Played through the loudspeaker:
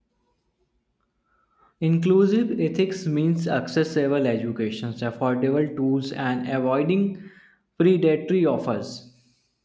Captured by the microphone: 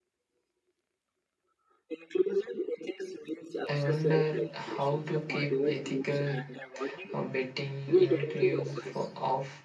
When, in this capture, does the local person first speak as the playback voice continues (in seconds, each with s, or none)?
3.7 s